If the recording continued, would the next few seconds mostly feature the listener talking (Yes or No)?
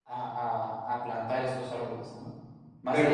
Yes